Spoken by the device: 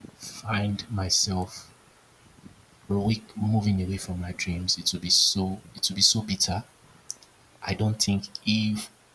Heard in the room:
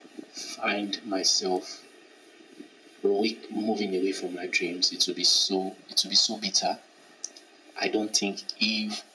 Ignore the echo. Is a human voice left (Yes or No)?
No